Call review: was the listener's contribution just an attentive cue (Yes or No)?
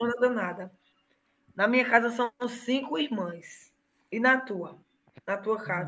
No